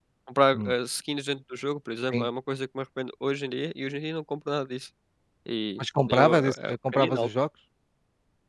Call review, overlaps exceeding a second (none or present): present